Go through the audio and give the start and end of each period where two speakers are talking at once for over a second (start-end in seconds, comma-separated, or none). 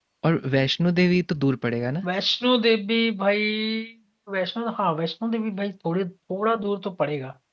none